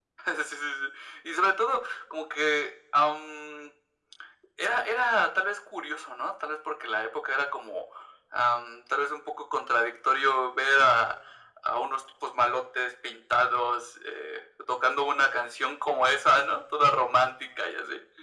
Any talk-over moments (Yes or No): No